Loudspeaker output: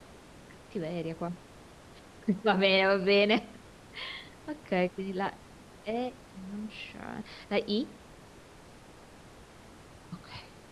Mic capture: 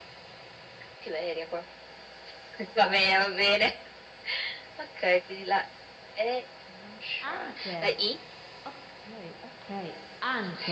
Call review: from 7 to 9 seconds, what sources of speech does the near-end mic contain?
both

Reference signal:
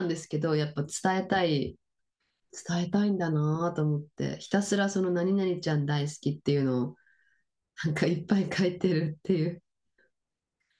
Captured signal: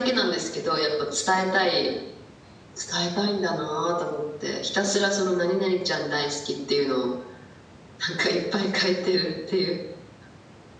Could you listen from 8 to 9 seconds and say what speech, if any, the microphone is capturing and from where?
echo only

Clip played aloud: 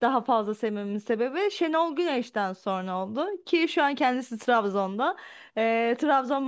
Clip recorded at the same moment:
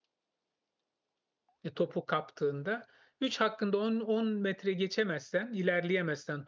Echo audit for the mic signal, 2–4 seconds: user only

